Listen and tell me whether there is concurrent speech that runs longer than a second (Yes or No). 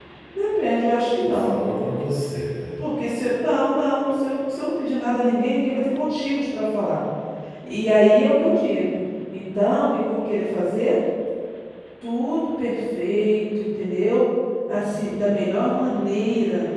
No